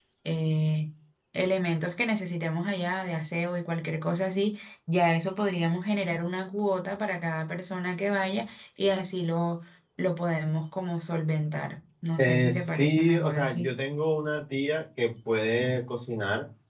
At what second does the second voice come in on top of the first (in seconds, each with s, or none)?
12.2 s